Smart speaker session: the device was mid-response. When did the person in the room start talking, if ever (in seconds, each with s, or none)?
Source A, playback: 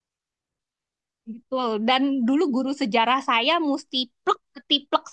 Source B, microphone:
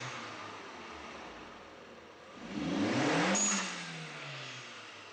none